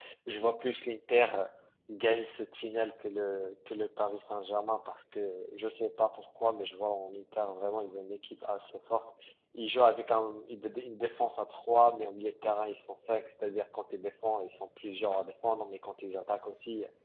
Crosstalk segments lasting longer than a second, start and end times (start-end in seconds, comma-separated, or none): none